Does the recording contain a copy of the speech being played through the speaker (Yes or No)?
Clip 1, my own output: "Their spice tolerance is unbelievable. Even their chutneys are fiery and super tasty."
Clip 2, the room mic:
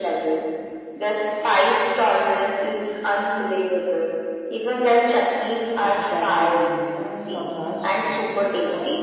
Yes